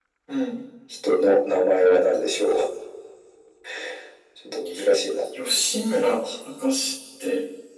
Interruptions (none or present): none